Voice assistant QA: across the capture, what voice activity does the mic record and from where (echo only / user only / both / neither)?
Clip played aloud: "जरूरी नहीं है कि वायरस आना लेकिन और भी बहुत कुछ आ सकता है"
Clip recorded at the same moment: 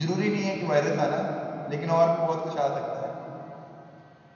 echo only